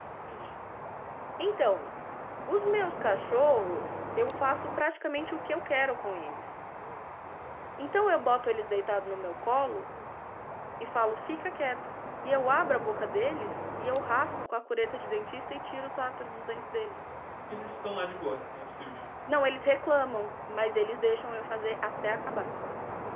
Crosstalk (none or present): none